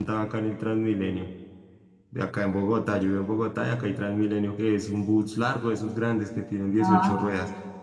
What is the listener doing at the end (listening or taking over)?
listening